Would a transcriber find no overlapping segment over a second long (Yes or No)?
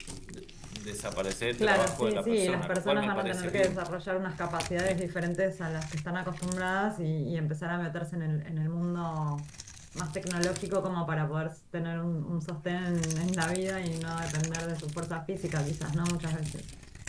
No